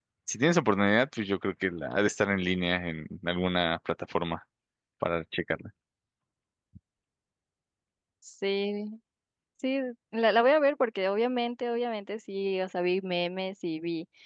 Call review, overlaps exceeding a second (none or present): none